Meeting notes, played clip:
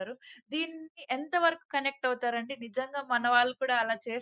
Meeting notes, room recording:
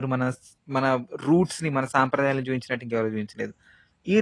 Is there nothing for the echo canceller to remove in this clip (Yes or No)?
Yes